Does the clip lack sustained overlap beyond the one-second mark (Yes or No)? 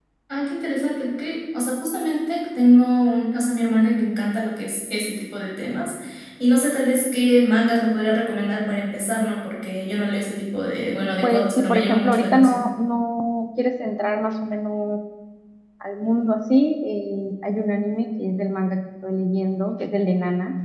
No